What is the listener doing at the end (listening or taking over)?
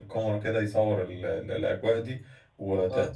listening